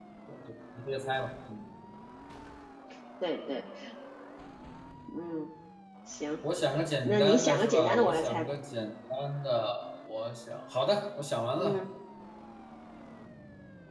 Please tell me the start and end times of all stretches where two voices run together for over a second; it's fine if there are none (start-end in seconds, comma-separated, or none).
7.0-8.6